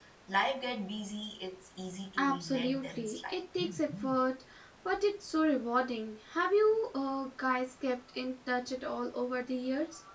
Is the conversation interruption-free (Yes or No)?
No